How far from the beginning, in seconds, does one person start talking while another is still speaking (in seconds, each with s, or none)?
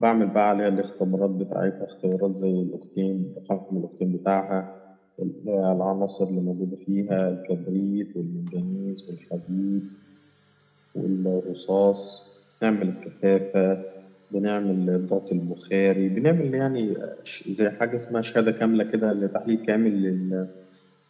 none